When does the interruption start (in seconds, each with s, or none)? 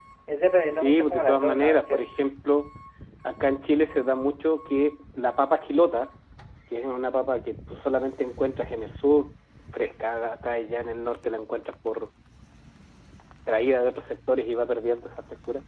0.7 s